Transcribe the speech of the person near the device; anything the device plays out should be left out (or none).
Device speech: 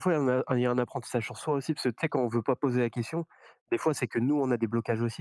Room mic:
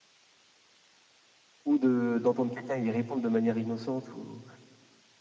ou de d'entendre quelqu'un y répondre de manière innocente ou,